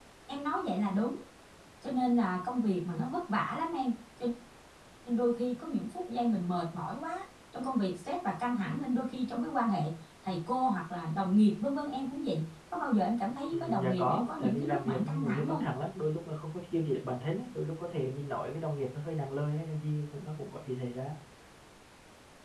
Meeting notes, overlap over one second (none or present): present